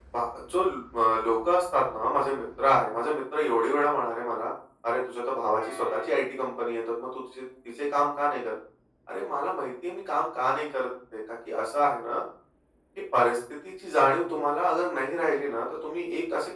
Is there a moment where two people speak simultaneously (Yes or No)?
No